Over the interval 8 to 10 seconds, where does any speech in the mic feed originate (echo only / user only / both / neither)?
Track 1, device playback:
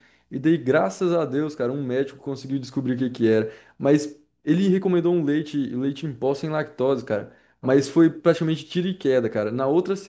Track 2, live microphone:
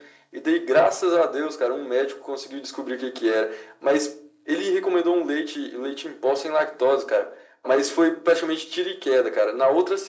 echo only